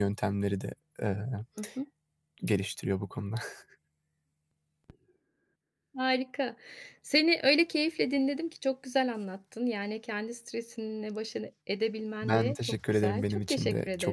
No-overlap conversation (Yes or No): No